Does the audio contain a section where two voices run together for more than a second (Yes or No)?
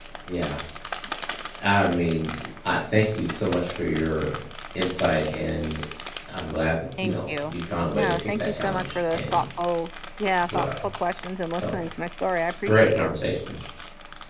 Yes